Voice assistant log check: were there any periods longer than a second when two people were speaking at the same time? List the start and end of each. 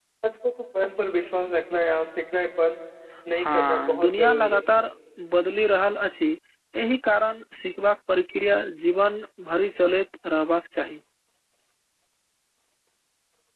3.4-4.8

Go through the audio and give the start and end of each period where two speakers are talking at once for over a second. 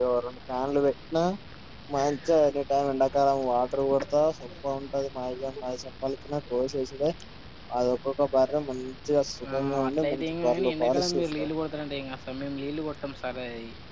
9.5-11.2

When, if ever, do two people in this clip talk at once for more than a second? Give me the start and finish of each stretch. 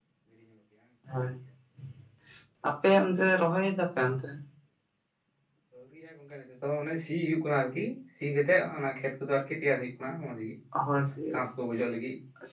none

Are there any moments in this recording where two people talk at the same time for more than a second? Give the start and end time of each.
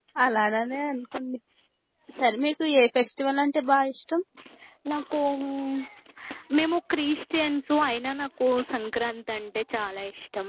none

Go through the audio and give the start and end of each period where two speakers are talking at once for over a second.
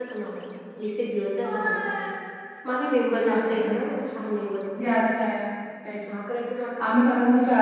none

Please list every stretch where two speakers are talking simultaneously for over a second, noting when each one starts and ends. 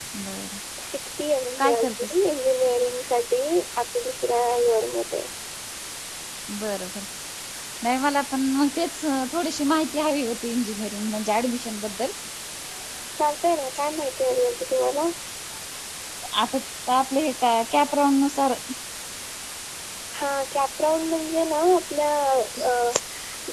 none

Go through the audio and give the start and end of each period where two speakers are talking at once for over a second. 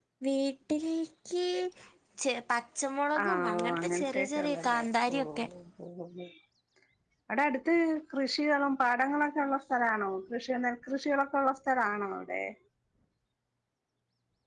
3.2-4.8

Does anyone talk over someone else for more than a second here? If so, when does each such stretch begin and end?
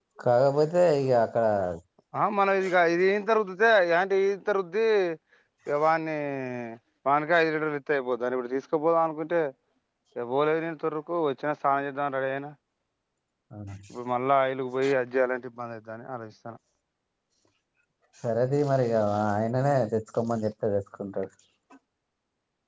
none

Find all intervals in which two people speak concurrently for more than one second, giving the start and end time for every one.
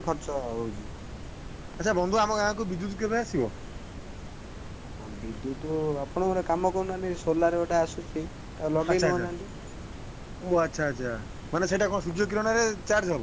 none

